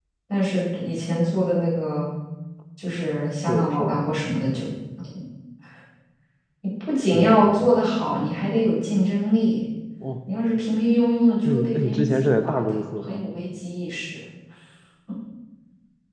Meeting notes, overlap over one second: present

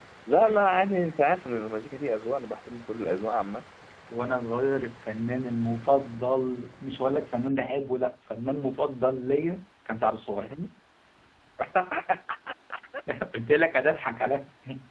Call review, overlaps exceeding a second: none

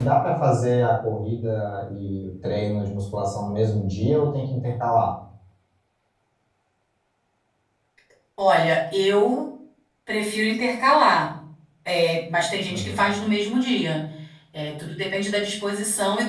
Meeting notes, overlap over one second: none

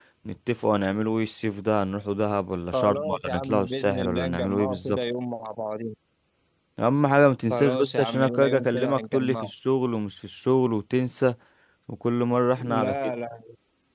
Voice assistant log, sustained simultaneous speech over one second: present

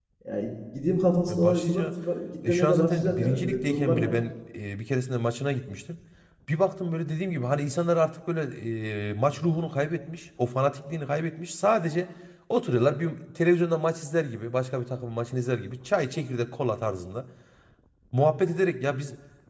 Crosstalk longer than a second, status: present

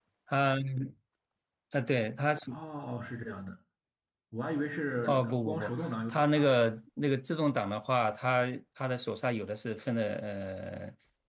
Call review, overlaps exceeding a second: present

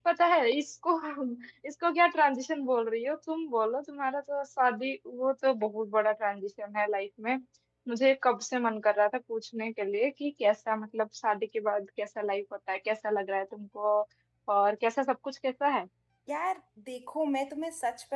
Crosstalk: none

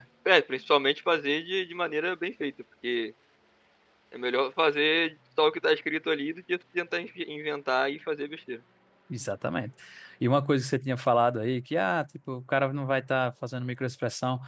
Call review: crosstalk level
none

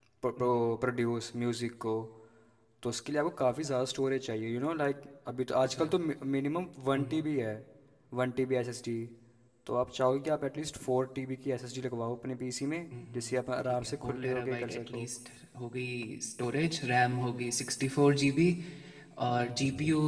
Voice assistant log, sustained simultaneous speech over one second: present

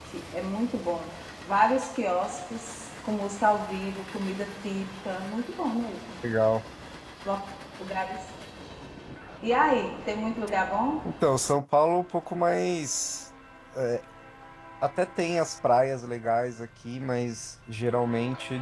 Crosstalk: none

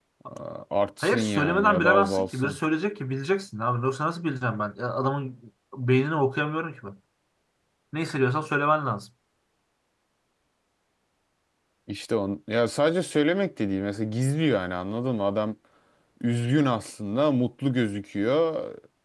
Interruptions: present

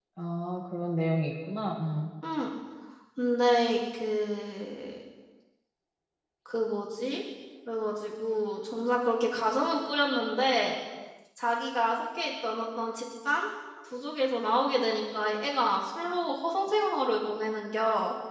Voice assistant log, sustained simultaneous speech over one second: none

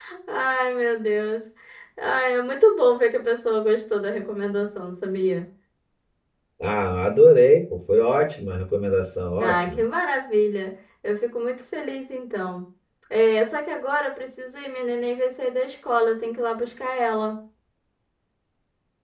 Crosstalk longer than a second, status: none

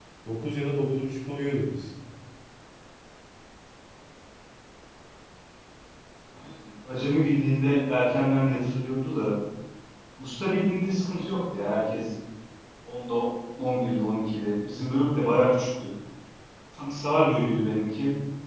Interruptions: none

